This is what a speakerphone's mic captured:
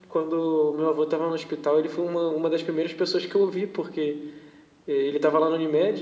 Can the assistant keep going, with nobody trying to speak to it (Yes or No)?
Yes